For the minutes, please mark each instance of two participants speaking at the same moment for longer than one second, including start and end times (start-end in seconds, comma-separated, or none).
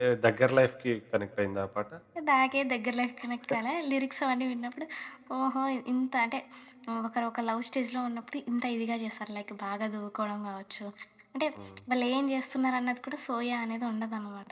none